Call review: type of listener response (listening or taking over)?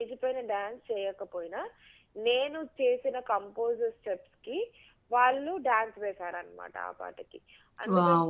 taking over